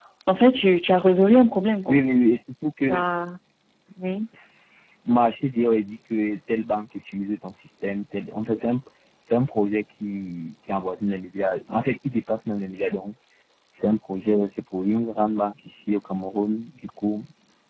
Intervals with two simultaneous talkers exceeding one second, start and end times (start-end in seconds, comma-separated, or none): none